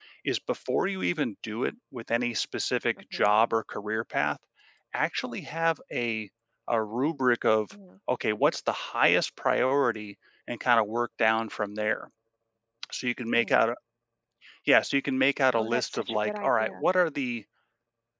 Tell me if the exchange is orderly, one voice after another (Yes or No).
No